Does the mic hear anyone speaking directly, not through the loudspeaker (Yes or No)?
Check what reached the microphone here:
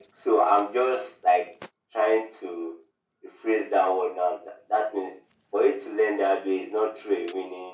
No